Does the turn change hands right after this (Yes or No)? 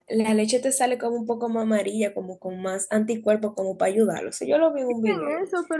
Yes